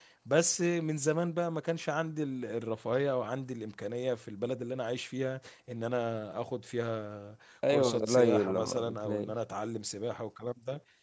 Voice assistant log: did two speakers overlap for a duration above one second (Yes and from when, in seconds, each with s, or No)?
Yes, from 7.6 s